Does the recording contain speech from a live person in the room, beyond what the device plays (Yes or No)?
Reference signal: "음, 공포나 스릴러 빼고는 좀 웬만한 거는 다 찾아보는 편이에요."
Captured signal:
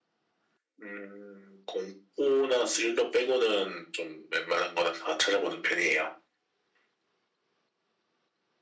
No